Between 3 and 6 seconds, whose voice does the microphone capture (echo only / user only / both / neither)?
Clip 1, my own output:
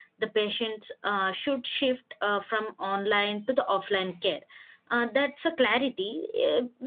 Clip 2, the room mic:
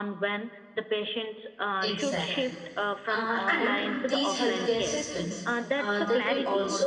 both